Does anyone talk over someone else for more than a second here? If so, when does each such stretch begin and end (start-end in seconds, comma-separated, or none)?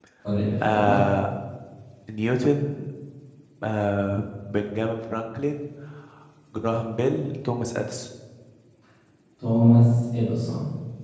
none